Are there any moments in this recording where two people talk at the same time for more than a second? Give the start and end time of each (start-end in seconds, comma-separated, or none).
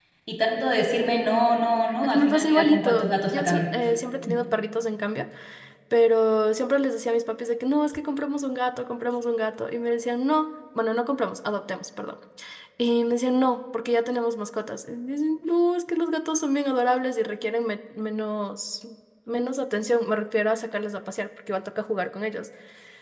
2.1-3.6